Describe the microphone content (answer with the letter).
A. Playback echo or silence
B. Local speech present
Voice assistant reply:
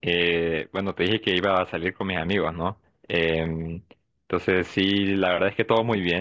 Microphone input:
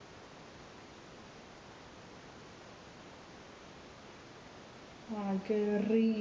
B